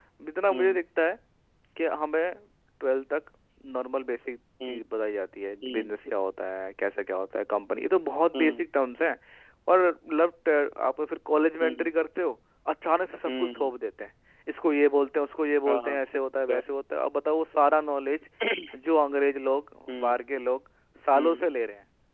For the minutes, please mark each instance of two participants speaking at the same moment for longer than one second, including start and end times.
none

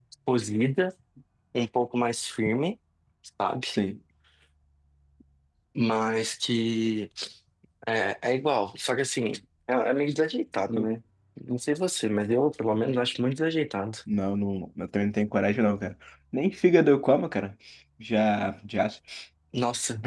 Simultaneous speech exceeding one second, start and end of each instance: none

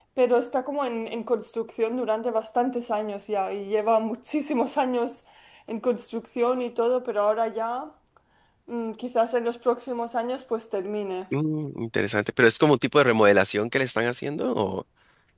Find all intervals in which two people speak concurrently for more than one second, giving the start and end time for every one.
none

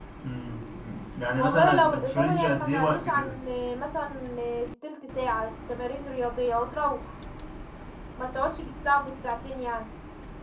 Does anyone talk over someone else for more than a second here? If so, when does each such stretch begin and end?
1.3-3.4

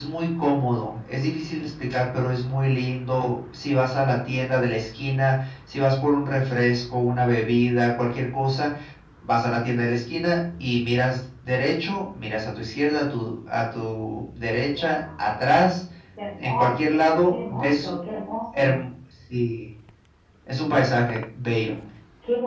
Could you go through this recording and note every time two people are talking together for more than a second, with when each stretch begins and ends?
16.4-17.9

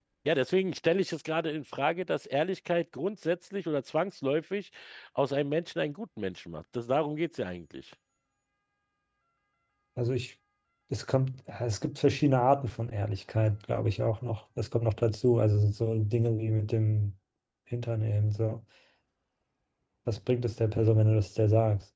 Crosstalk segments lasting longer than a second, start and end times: none

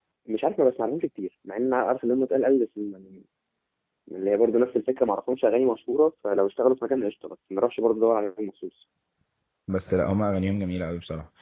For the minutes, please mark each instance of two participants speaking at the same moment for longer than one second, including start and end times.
none

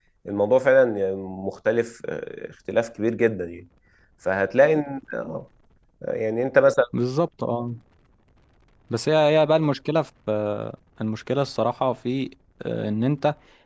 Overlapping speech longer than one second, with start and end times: none

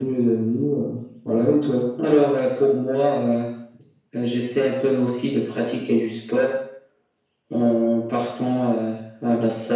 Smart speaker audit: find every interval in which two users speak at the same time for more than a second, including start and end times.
none

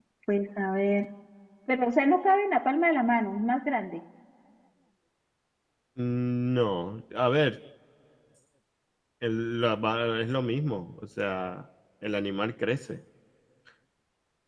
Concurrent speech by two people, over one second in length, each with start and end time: none

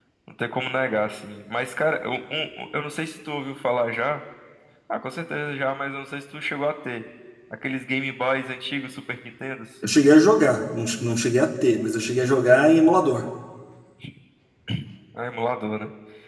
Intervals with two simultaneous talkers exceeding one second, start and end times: none

